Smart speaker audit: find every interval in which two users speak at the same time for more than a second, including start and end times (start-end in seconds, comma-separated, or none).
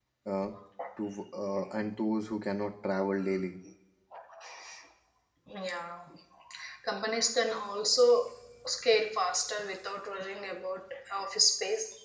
none